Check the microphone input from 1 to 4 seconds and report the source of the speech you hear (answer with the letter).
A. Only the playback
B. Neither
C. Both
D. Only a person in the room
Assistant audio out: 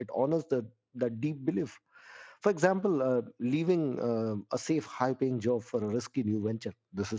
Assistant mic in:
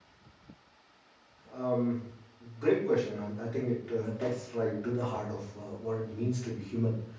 D